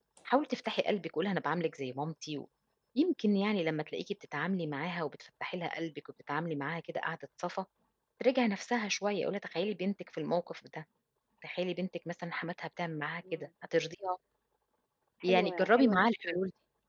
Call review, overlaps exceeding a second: present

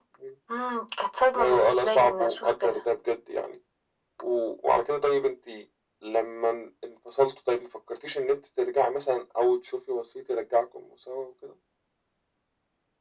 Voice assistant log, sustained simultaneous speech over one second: present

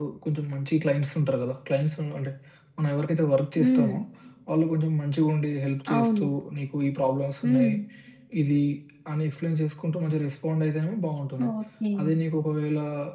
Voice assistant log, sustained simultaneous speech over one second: none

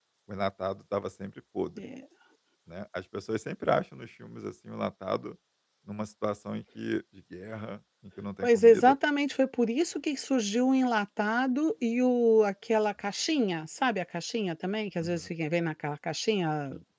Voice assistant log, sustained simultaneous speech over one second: none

